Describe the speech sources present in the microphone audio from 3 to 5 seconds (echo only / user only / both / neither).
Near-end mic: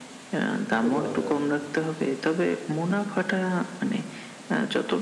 echo only